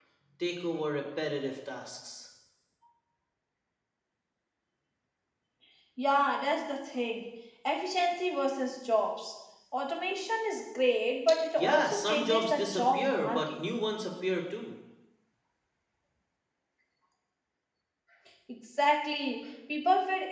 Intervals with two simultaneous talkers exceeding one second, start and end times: 11.6-13.6

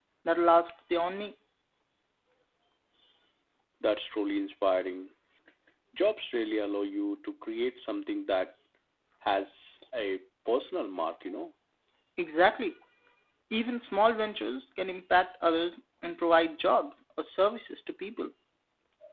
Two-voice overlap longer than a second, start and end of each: none

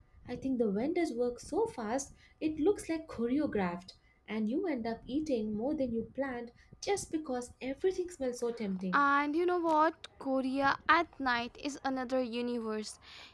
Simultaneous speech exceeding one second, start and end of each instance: none

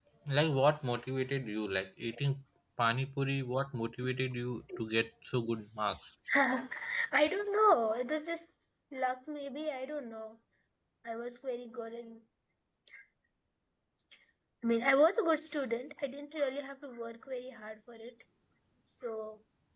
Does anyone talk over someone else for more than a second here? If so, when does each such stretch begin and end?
none

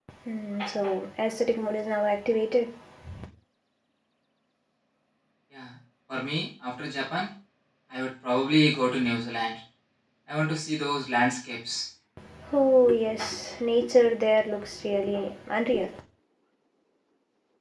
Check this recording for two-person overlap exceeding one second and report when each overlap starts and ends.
none

